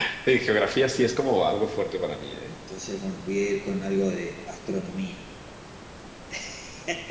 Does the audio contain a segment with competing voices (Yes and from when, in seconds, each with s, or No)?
No